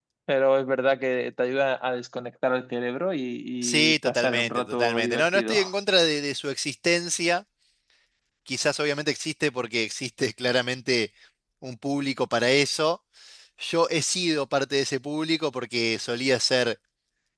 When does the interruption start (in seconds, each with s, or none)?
3.6 s